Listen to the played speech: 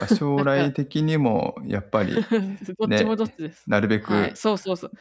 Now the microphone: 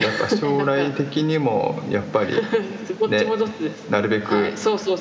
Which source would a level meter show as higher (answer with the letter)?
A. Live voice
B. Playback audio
B